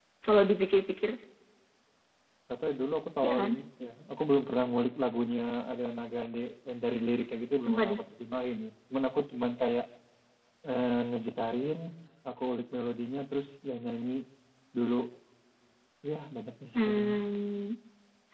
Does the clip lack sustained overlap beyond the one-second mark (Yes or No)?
Yes